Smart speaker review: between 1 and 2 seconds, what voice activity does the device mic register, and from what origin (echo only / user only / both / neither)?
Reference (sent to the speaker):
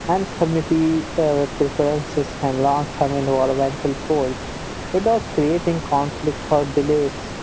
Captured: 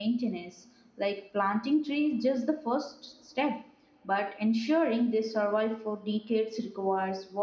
user only